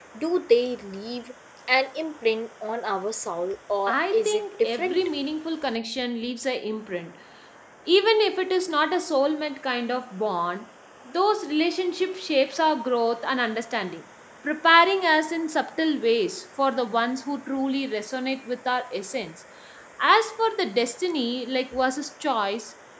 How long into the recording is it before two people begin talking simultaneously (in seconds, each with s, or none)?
3.9 s